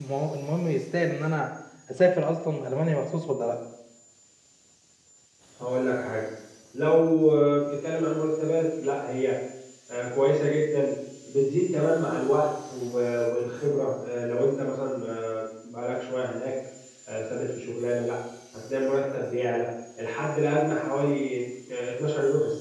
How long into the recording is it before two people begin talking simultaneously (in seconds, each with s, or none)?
none